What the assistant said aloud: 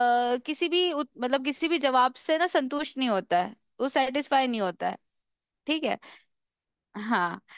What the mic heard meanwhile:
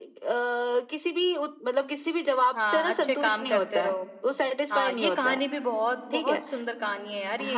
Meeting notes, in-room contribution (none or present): present